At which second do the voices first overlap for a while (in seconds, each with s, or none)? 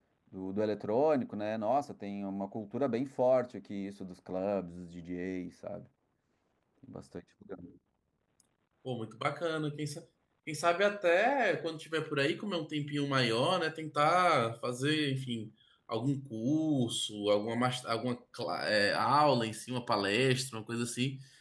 none